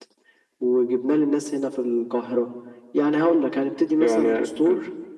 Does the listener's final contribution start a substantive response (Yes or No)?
Yes